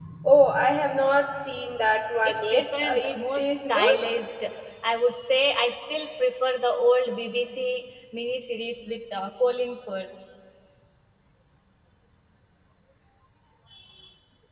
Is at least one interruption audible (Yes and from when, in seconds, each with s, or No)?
Yes, from 2.2 s